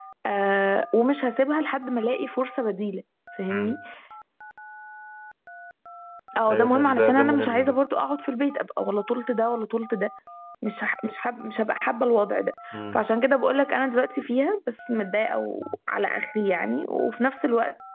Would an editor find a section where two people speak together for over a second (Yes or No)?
Yes